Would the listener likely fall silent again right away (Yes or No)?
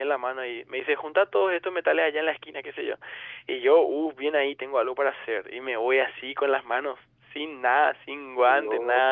Yes